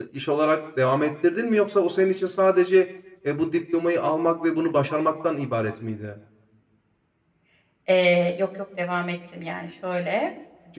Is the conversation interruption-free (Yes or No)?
Yes